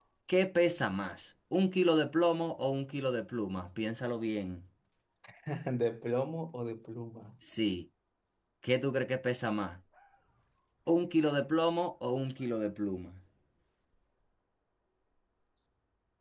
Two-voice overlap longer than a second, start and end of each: none

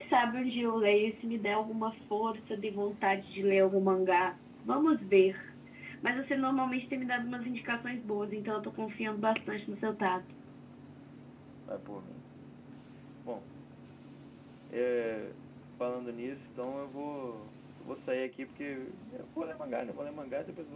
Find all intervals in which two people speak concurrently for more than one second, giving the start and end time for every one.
none

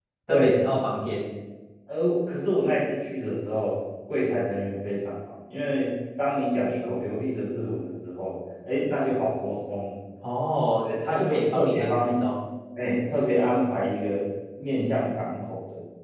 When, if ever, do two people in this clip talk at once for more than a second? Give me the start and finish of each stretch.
10.8-12.2

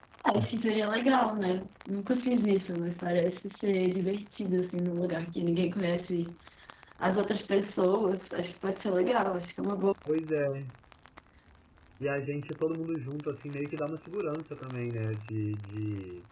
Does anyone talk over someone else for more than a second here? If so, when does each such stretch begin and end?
none

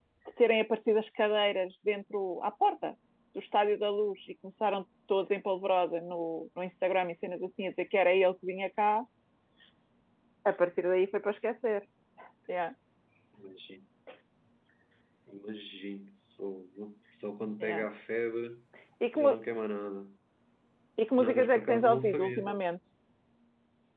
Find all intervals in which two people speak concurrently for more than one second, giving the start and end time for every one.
21.2-22.6

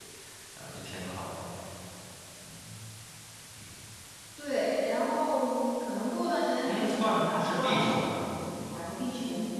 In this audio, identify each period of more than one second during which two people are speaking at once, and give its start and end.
6.7-8.2

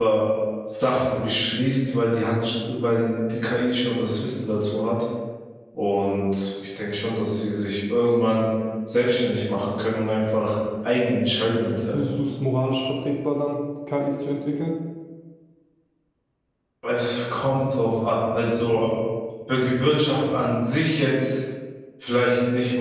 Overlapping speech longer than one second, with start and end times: none

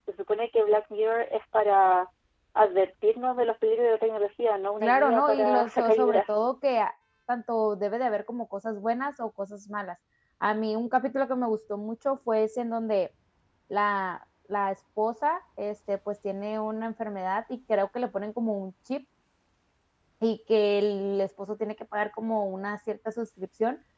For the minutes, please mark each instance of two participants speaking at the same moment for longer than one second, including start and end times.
4.8-6.3

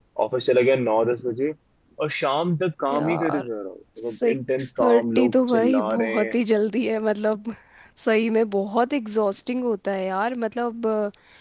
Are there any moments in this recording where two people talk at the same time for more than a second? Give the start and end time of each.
4.1-6.4

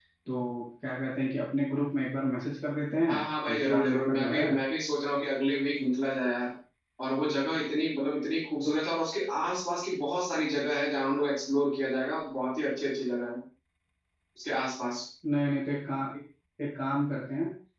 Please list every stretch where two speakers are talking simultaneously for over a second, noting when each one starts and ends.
3.1-4.4

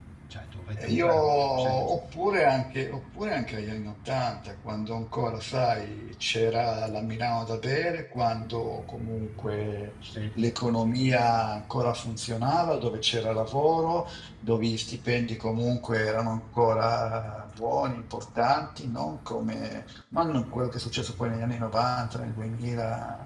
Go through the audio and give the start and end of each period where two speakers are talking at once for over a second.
0.8-2.0

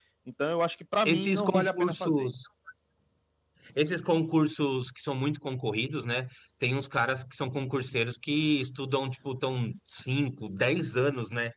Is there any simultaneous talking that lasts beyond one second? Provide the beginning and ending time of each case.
1.0-2.3

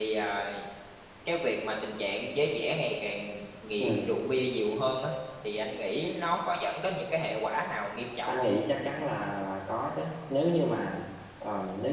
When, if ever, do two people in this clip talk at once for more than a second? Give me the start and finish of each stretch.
none

